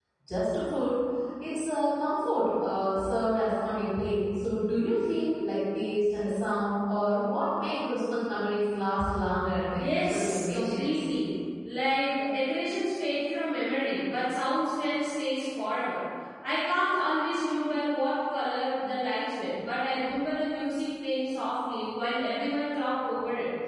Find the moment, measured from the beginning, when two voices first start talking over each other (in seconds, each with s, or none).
9.8 s